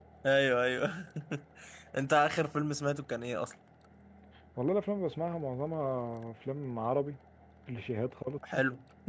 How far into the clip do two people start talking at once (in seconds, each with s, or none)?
none